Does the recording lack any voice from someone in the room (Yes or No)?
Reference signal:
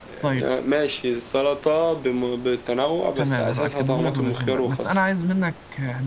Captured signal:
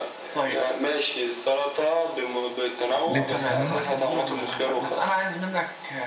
No